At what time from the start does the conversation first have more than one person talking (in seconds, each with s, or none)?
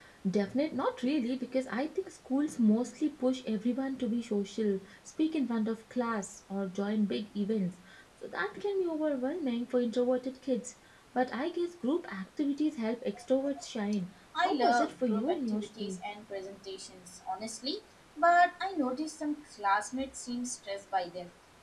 14.3 s